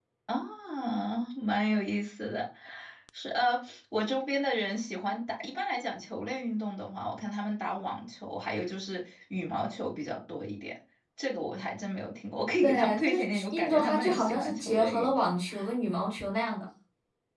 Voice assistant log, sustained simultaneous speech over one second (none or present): present